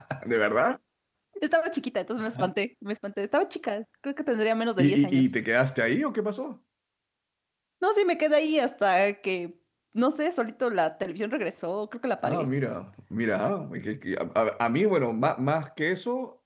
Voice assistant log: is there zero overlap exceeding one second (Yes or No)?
Yes